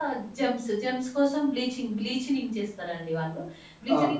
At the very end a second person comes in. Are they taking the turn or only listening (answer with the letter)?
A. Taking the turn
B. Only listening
B